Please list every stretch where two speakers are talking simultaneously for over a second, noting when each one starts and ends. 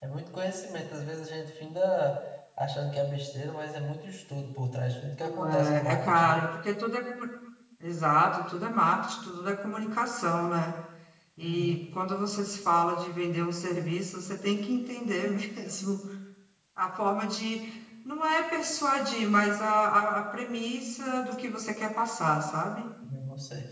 5.2-6.4

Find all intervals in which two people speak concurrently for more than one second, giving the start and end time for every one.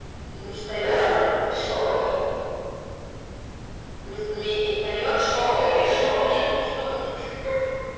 5.1-6.4

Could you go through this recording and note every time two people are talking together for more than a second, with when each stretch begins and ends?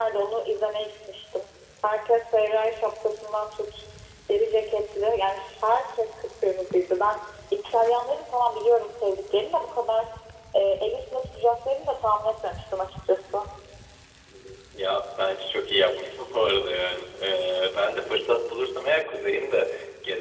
none

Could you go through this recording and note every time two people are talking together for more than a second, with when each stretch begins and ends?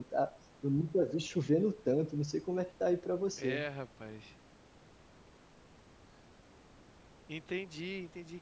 none

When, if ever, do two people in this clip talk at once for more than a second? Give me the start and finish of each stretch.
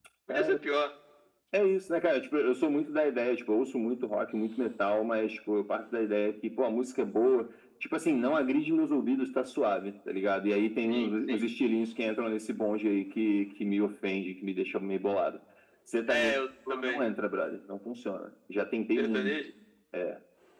none

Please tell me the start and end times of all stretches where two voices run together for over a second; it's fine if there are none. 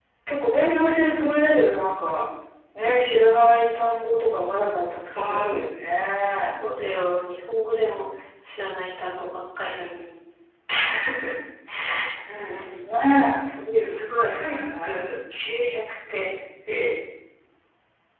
13.8-15.1

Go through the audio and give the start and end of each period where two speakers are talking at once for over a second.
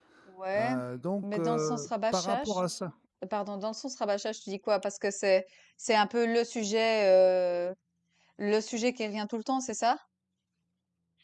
1.2-2.6

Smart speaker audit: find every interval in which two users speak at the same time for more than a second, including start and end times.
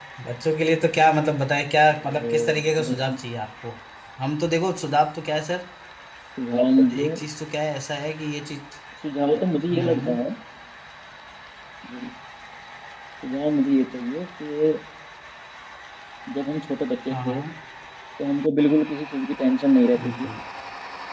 1.9-3.2

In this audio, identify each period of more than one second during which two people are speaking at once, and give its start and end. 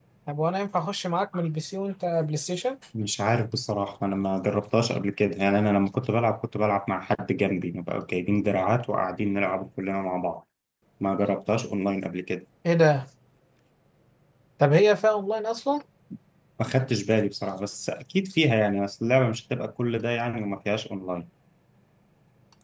none

